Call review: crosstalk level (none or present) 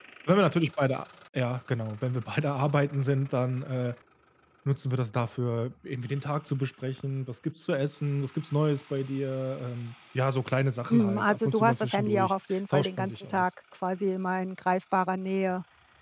present